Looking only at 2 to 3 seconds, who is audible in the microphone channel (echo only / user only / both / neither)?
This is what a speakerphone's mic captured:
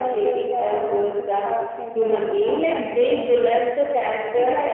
echo only